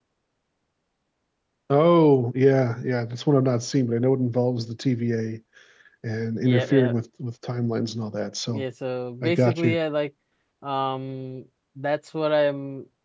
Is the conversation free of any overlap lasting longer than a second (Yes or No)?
Yes